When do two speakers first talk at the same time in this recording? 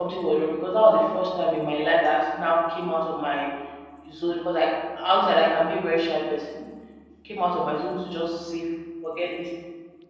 none

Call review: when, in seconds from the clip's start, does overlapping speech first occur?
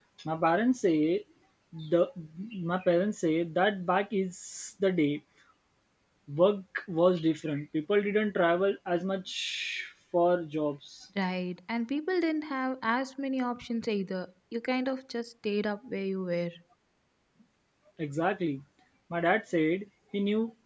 none

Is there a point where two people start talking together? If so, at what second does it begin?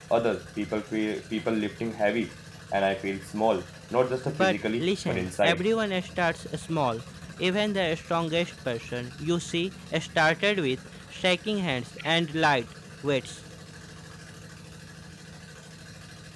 4.3 s

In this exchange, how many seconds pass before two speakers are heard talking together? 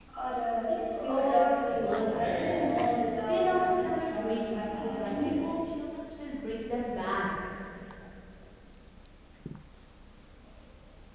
1.1 s

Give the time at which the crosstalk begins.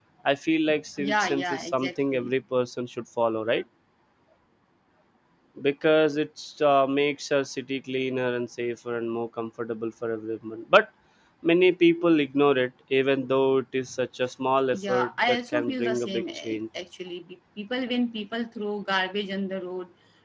1.0 s

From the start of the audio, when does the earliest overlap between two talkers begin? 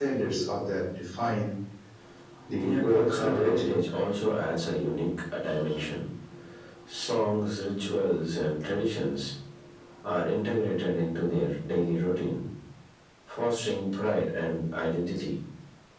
2.5 s

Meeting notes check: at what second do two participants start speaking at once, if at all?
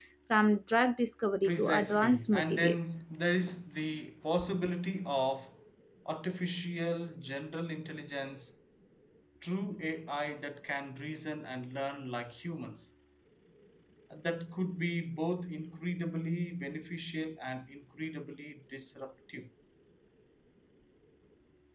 1.4 s

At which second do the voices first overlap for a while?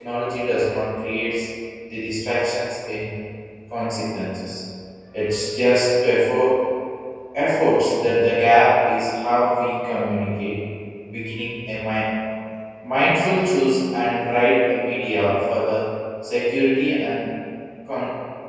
none

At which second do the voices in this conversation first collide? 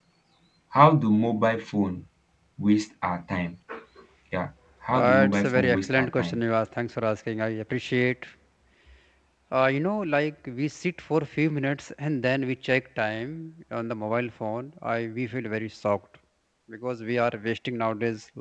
4.9 s

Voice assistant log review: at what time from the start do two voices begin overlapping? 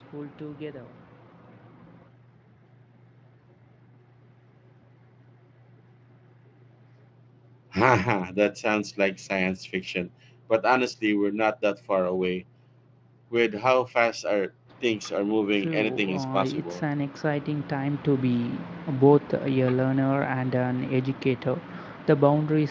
15.6 s

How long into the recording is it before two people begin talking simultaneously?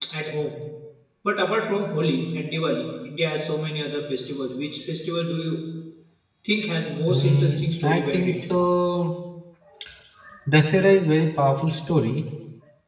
7.1 s

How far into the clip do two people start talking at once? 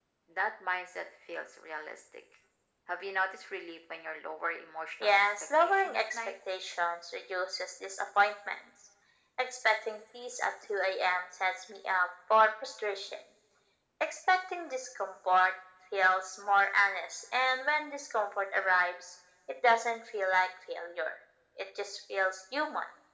5.0 s

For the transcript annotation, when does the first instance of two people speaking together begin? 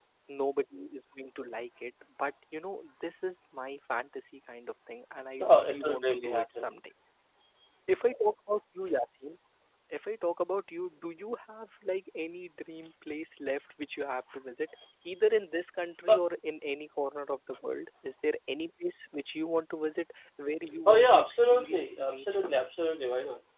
5.4 s

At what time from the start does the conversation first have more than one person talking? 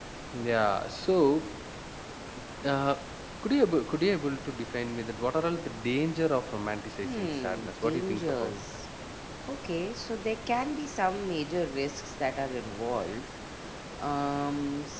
7.0 s

